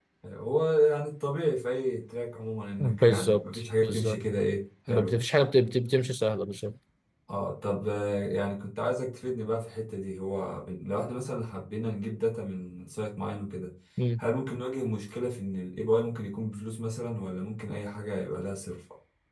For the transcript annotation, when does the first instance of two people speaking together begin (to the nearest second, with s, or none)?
3 s